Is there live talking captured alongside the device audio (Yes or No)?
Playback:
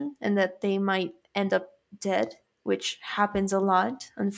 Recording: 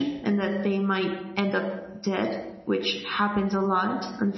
No